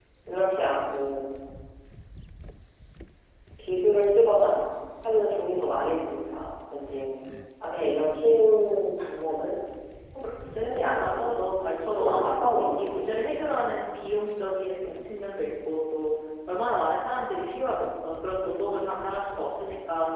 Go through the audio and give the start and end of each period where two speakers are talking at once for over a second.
10.5-12.3

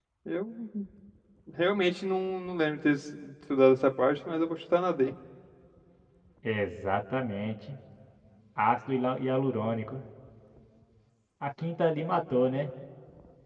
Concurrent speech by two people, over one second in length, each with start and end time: none

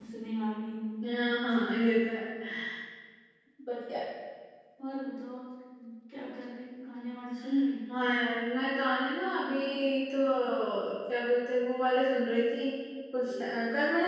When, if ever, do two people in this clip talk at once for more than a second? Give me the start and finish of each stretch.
none

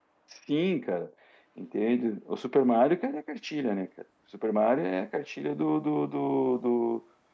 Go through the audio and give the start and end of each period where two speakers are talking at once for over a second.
none

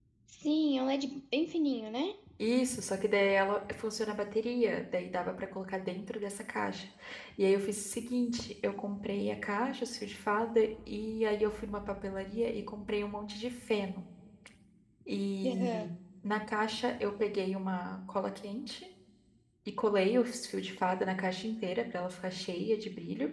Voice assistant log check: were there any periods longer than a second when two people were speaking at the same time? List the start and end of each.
none

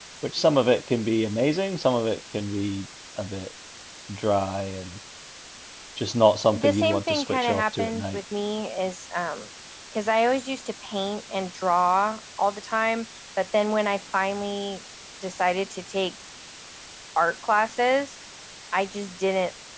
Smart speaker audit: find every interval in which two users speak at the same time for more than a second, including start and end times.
6.5-8.2

